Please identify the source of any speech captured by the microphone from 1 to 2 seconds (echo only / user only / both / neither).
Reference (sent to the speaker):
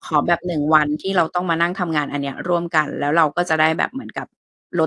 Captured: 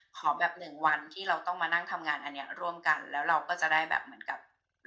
echo only